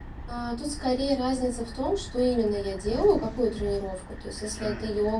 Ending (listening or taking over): listening